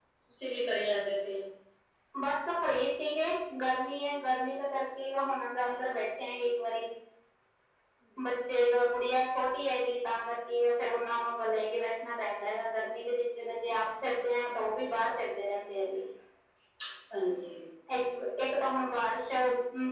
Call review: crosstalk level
none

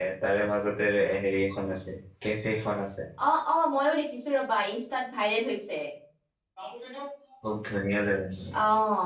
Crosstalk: none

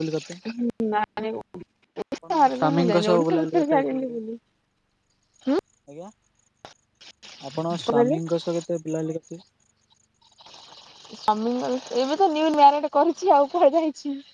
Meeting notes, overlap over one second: present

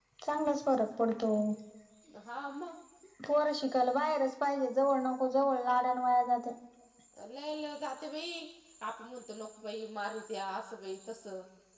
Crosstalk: none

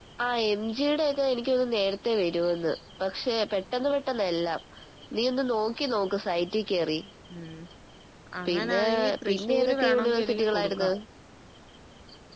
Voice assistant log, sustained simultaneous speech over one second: present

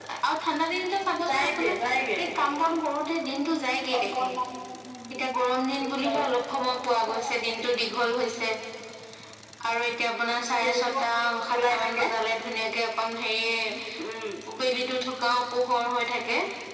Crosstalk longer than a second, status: none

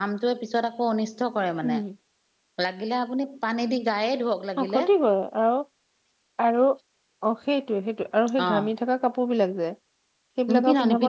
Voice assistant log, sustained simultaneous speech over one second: none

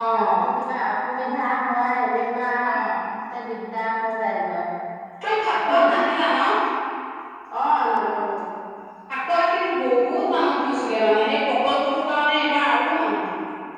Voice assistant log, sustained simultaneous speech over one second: none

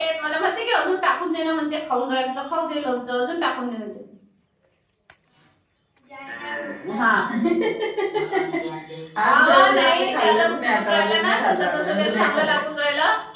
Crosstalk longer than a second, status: present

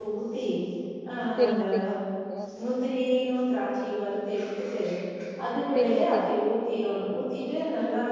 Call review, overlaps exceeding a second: none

